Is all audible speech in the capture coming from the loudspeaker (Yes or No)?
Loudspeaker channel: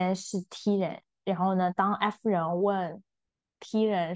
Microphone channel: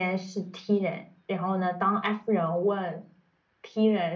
Yes